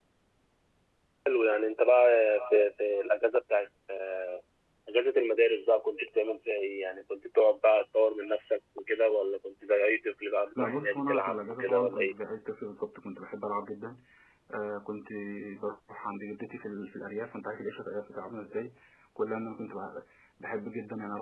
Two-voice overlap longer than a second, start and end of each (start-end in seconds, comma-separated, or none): 10.6-12.1